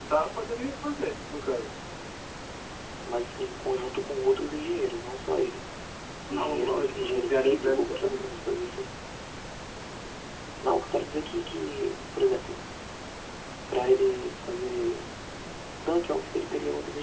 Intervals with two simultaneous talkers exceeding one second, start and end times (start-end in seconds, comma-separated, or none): 6.3-8.3